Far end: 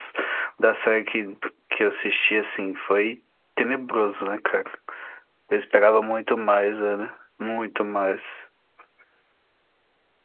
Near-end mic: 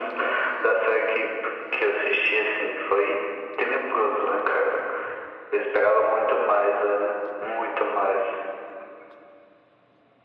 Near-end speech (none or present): none